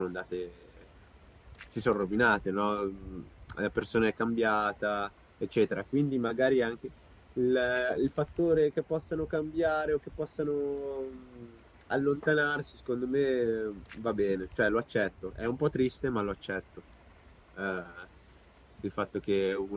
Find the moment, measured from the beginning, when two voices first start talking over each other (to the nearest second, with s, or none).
none